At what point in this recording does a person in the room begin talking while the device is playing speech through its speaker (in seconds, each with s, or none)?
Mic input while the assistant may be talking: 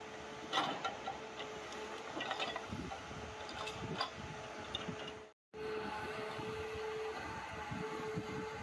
none